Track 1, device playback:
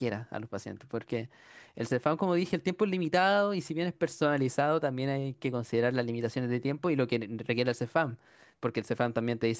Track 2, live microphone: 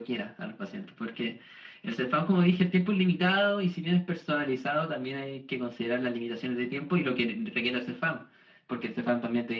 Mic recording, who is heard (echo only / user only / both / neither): echo only